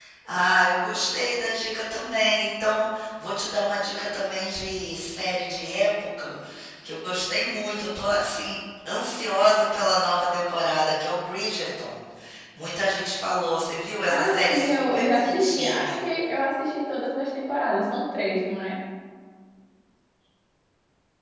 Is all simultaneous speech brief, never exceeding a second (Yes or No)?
No